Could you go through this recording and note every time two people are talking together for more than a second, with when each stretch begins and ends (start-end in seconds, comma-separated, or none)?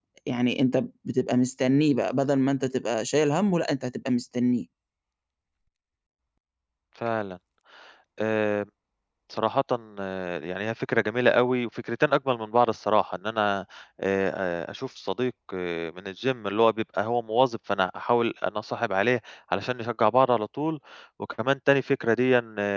none